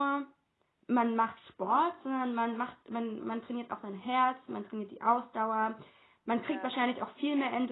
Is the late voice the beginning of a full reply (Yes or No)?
No